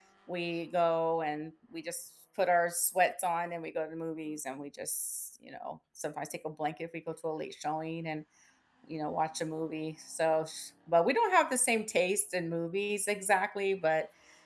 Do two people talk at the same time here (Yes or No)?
No